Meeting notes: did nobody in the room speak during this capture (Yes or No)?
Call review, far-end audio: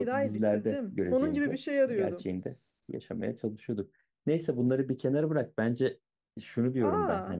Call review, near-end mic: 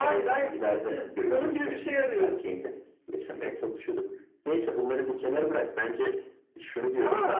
Yes